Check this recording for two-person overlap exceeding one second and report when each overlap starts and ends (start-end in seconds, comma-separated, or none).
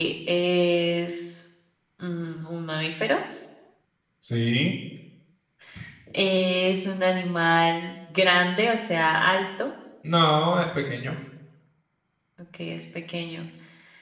none